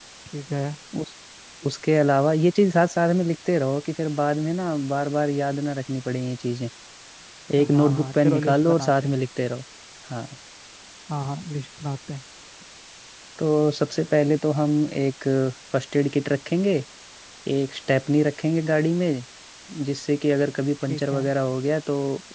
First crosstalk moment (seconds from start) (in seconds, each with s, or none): 7.6 s